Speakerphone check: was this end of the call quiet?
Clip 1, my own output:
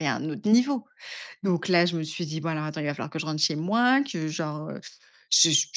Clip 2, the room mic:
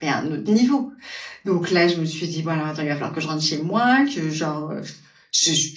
Yes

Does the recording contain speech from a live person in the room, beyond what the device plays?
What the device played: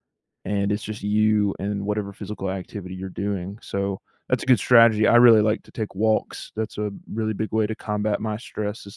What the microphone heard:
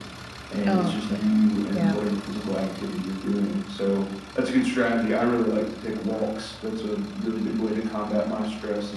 Yes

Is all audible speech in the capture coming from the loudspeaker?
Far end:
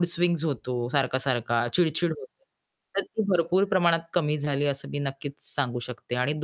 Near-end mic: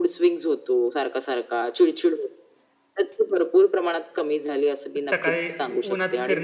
No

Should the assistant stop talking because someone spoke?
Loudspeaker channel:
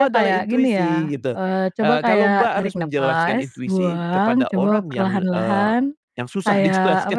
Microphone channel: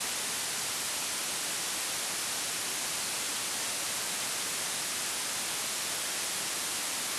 No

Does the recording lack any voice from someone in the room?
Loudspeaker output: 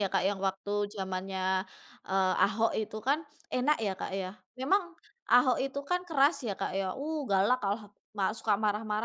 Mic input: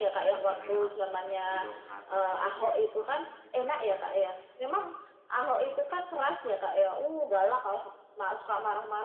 No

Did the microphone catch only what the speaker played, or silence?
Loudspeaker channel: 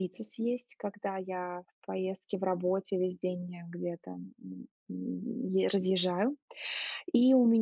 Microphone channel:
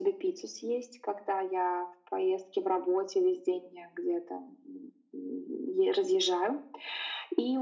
Yes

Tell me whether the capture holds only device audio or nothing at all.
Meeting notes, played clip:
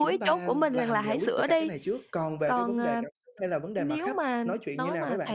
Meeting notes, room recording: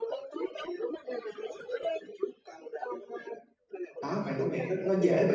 No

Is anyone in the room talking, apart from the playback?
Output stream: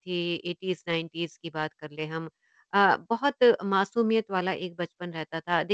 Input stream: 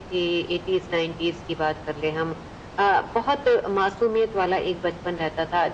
No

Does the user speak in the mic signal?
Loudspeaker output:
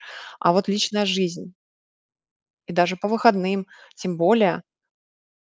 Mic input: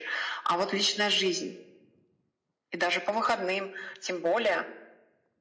No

